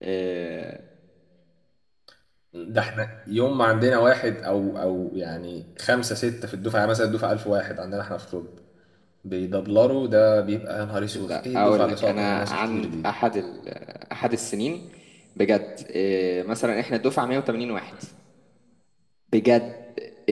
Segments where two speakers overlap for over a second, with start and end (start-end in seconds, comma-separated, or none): 11.1-13.1